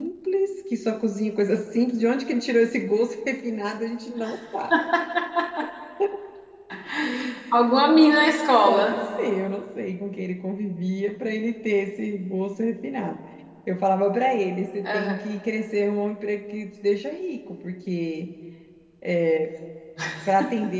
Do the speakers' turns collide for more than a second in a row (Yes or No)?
No